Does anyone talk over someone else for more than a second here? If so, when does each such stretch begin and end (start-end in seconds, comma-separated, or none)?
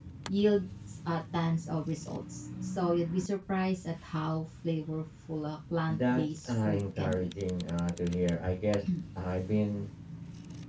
5.9-7.3